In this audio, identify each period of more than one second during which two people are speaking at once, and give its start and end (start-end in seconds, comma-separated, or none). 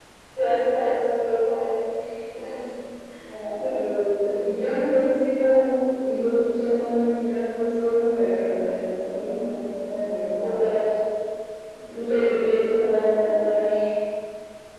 none